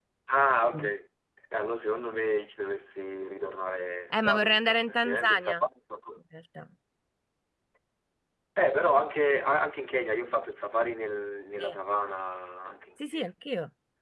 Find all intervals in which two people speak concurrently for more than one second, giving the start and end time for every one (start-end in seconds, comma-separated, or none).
4.1-5.6